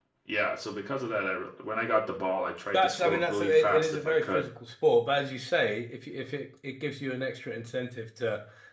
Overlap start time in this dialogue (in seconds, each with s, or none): 2.7 s